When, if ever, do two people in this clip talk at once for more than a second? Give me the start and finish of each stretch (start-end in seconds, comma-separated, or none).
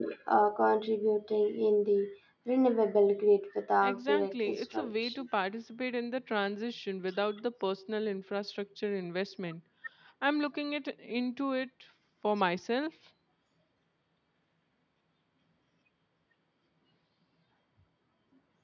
3.8-5.1